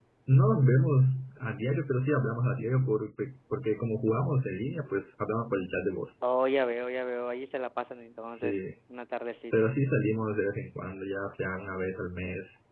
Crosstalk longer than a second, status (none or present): none